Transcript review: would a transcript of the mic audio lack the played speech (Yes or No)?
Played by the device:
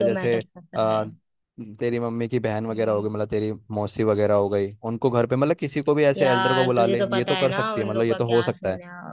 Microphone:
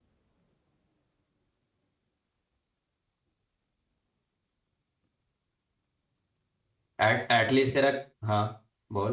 Yes